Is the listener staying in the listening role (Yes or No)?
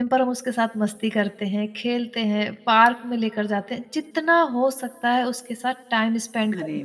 No